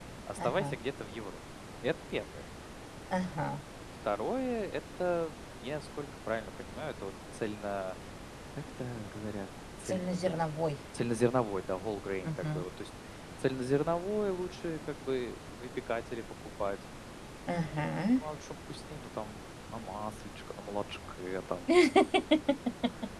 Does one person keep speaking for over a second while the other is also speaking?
No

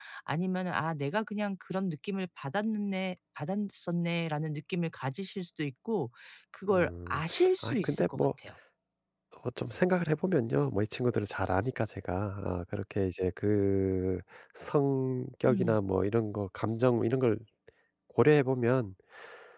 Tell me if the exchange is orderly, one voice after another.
No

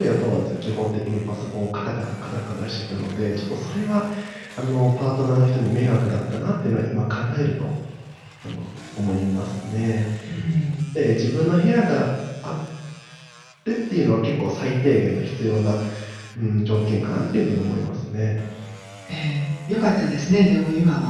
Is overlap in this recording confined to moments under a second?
Yes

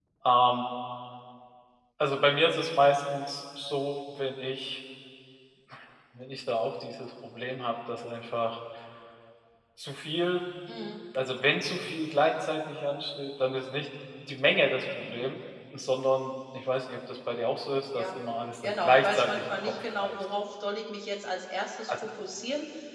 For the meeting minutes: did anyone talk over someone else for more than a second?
Yes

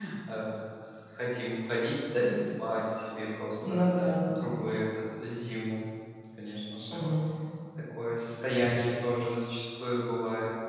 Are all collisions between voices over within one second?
Yes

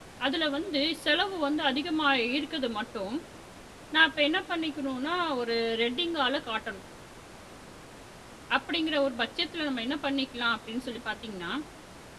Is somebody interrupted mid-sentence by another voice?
No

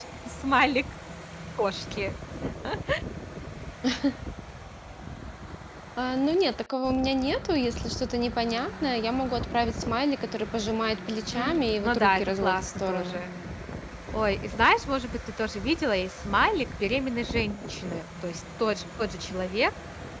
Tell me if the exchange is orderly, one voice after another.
No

